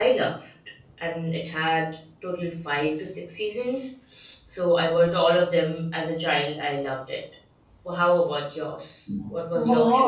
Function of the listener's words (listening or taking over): taking over